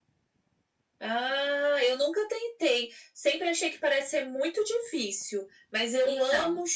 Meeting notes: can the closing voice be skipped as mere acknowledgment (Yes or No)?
Yes